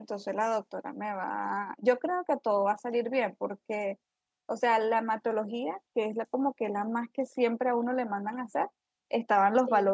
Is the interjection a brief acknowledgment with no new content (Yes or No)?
Yes